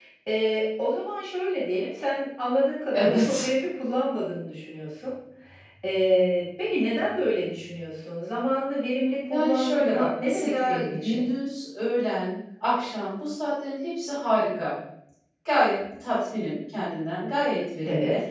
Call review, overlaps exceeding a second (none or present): present